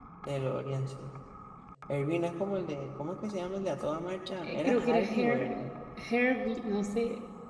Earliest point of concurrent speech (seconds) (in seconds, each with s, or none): 4.4 s